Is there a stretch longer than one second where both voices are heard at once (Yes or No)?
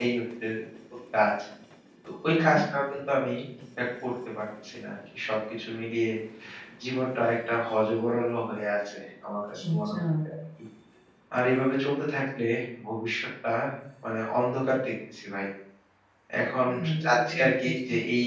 Yes